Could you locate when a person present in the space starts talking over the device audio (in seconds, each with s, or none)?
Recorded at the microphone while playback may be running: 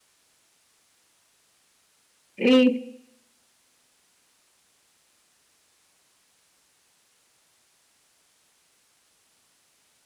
2.4 s